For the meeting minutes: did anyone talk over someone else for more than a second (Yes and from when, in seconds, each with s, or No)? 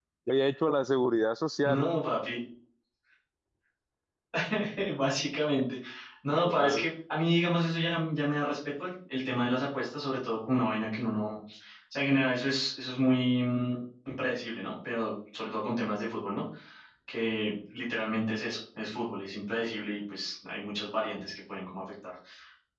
No